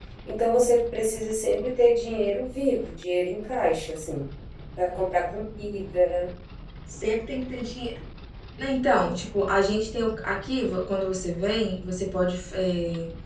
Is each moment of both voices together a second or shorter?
Yes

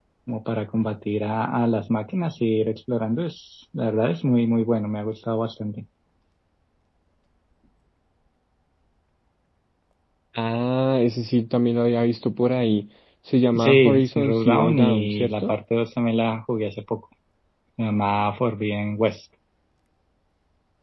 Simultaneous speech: Yes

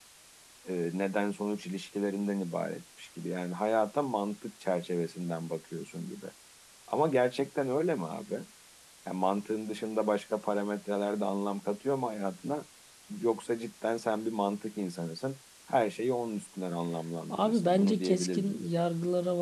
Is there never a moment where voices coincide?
No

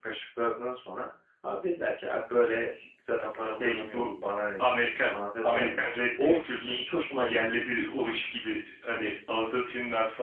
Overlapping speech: Yes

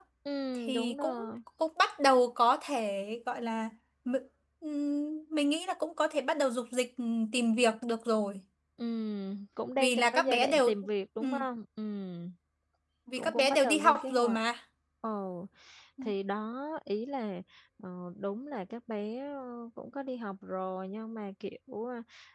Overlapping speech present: Yes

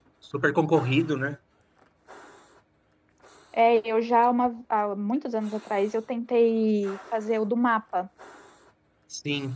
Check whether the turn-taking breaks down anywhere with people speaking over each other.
No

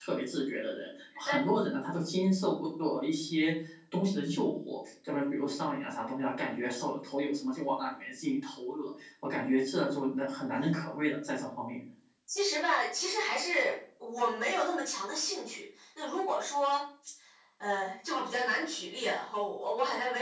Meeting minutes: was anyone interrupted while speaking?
No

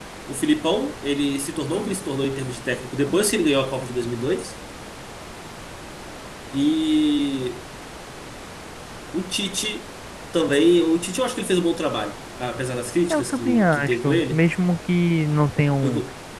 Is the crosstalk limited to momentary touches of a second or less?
No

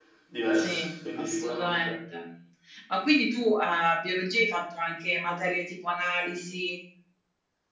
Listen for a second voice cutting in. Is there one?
Yes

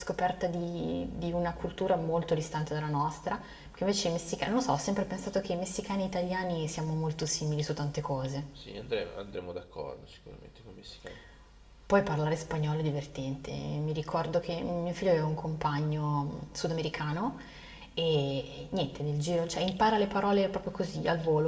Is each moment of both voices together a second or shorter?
Yes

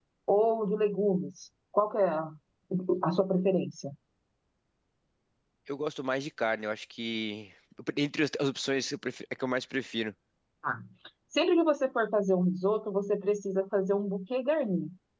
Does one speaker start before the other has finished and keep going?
No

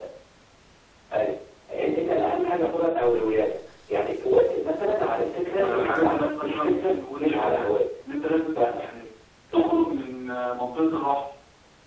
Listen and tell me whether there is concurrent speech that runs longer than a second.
Yes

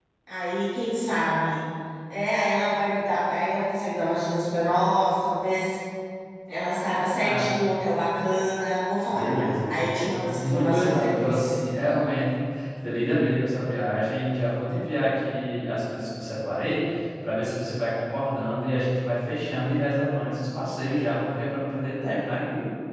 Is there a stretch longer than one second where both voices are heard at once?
Yes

